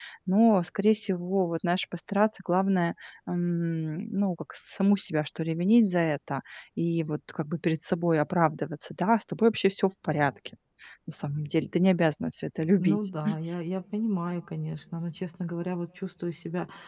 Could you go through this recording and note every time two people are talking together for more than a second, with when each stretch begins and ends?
none

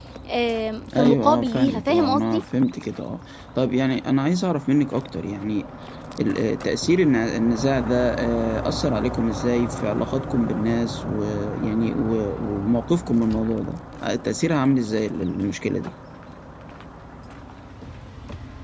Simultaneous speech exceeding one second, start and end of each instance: 0.9-2.4

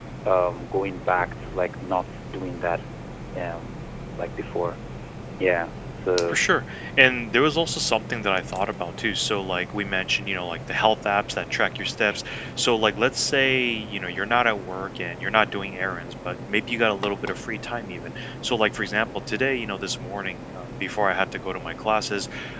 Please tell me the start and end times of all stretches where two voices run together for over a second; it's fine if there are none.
none

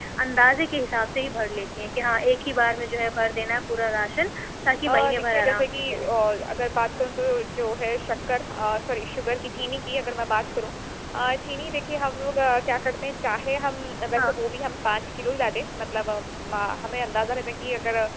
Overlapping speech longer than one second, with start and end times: 4.9-6.1

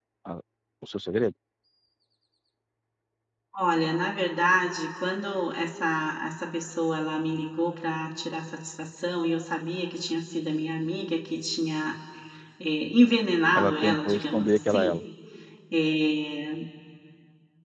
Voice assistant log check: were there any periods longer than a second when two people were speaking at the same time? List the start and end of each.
13.6-15.0

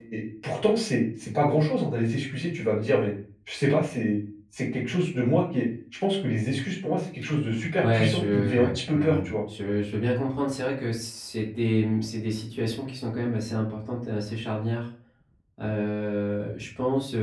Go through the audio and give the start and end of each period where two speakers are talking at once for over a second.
7.8-9.3

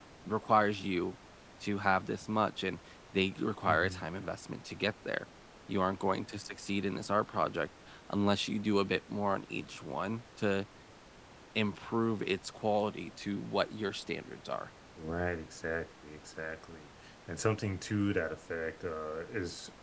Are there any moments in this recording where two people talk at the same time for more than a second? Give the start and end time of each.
none

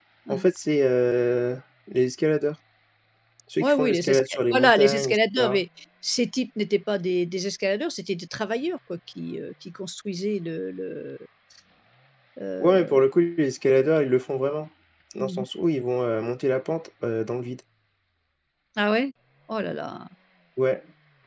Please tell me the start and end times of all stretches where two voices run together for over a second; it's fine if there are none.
3.6-5.6

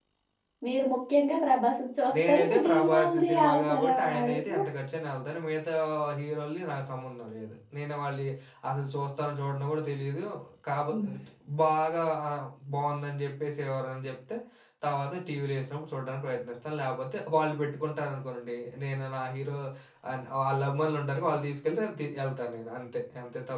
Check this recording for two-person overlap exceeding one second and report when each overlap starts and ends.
2.3-4.6

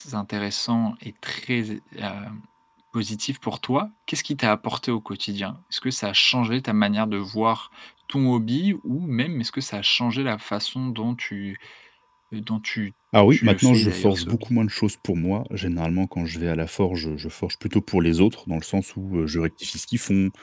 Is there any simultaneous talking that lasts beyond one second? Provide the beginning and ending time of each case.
13.3-14.5

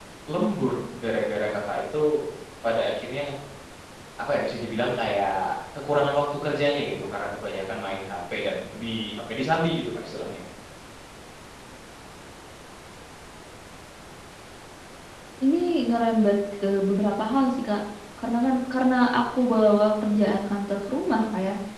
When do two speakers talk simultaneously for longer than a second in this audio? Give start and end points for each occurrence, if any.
none

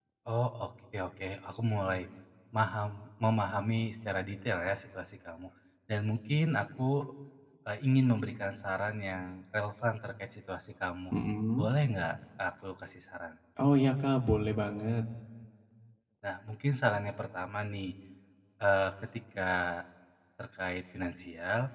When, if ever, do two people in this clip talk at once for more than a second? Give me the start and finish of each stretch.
none

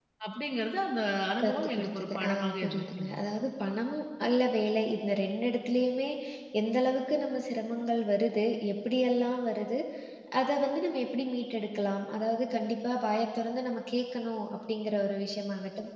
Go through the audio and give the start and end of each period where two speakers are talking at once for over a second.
1.4-3.1

